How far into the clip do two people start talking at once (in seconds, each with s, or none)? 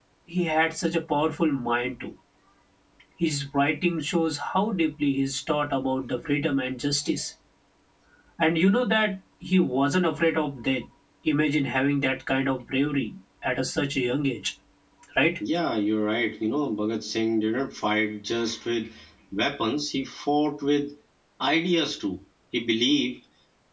none